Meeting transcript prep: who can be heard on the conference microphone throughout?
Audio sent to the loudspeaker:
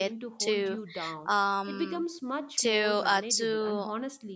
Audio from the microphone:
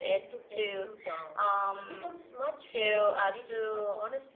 echo only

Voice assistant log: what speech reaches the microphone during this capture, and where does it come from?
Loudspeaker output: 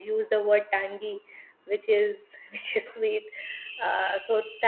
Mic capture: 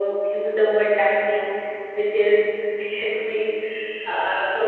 echo only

